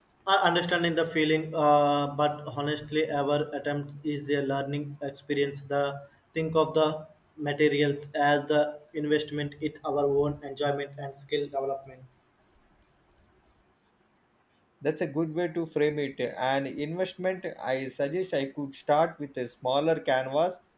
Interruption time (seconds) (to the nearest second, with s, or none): none